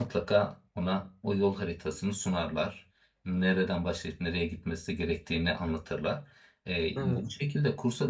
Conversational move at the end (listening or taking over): listening